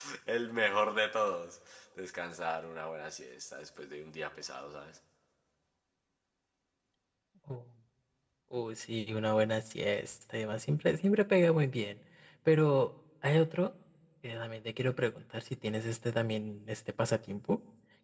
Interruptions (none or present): none